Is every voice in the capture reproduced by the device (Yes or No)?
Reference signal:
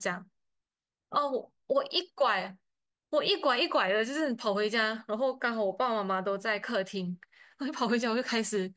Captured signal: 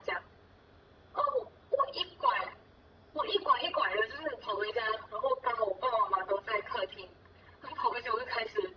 Yes